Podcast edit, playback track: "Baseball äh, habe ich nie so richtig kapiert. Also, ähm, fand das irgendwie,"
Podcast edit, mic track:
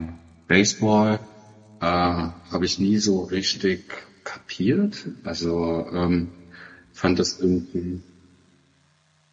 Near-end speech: none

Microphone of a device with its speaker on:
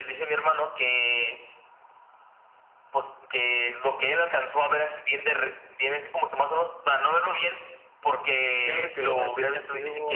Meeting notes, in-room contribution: present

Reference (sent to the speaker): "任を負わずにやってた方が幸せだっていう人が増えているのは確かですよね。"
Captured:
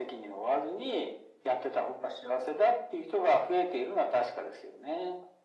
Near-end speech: none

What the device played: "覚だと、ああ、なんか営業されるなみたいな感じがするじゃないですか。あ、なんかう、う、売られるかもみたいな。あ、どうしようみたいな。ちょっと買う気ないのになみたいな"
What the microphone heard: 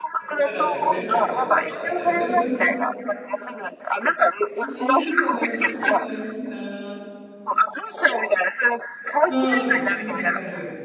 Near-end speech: present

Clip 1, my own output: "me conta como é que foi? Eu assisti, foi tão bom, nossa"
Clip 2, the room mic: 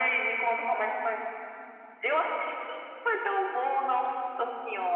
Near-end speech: none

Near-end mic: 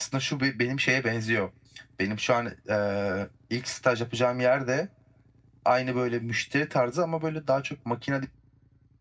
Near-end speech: present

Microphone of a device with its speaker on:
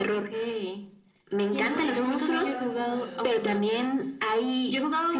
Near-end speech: present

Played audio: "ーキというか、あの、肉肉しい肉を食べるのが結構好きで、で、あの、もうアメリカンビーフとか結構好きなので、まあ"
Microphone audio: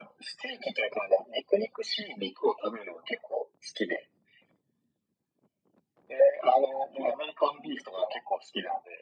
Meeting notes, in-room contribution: none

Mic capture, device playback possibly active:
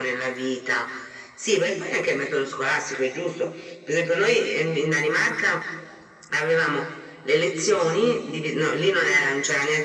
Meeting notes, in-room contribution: none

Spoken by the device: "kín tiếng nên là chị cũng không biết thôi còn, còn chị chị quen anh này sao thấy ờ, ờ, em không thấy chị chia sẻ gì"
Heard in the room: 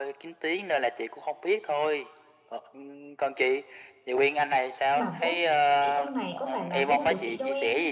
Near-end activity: present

